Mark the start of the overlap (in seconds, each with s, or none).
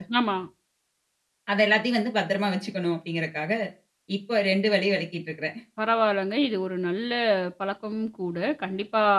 none